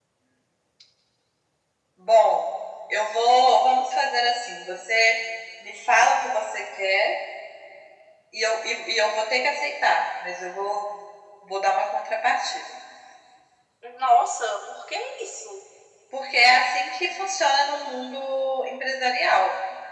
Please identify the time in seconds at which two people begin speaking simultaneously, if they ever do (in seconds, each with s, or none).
none